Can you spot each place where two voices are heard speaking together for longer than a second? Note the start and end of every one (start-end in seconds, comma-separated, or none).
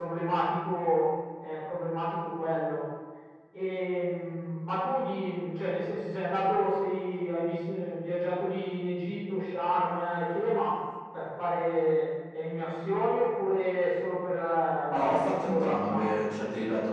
14.9-16.2